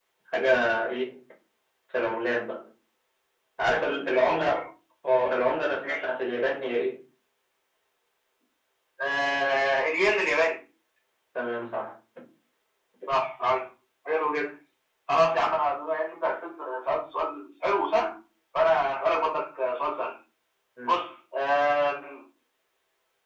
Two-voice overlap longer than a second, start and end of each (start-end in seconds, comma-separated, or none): none